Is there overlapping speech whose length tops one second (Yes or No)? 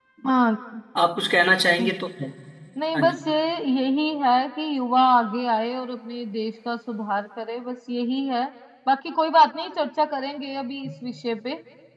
No